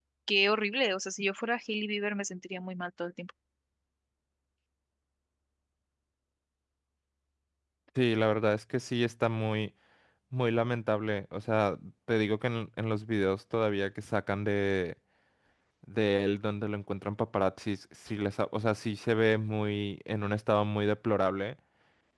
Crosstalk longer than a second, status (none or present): none